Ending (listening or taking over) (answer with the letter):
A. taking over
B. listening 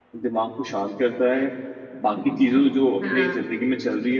B